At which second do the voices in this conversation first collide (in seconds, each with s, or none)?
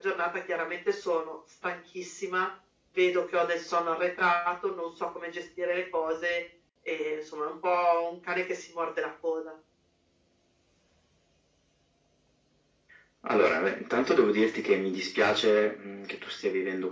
none